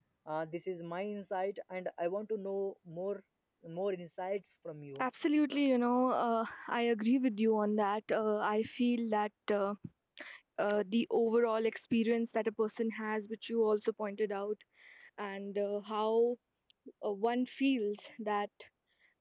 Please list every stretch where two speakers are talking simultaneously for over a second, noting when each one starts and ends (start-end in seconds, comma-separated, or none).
none